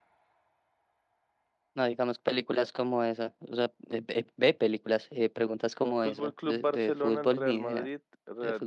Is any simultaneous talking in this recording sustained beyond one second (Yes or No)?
Yes